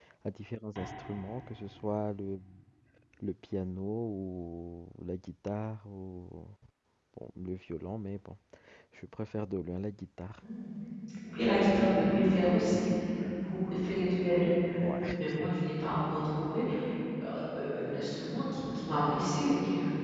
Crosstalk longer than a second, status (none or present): none